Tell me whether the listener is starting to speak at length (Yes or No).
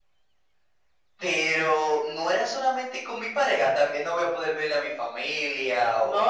Yes